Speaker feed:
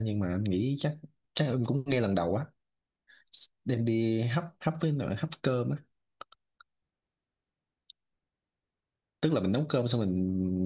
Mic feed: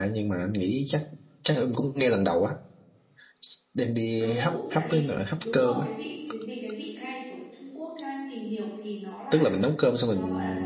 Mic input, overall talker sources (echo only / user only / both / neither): both